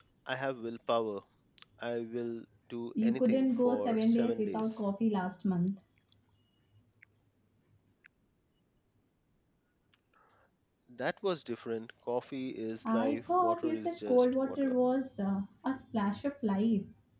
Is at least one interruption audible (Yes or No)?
Yes